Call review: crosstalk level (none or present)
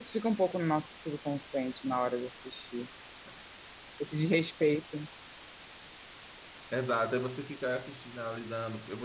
none